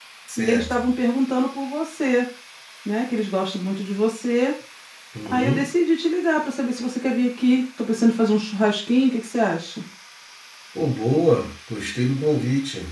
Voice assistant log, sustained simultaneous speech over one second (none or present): none